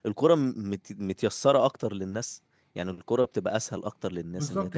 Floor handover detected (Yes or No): Yes